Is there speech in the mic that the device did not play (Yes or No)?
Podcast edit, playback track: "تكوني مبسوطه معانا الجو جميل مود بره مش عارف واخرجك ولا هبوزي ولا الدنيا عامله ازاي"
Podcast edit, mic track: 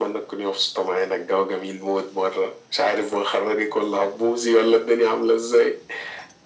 No